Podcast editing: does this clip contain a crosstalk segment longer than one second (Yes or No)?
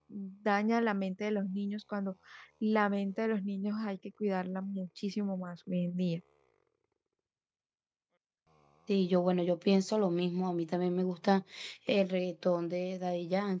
No